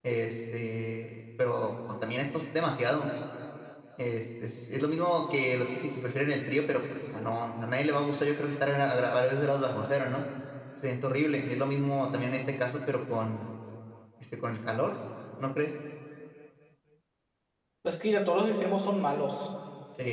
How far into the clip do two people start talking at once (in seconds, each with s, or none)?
none